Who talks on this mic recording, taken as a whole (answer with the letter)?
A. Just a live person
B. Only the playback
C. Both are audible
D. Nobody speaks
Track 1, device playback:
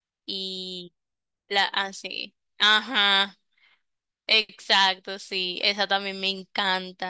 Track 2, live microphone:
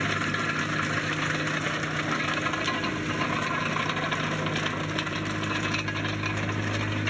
D